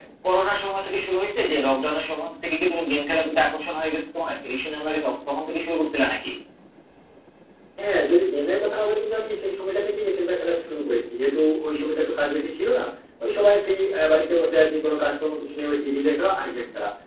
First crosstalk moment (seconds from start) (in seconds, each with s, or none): none